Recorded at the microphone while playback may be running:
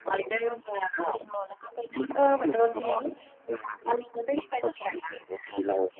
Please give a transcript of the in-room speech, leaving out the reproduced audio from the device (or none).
เออ เหมือนโดนทิ้ง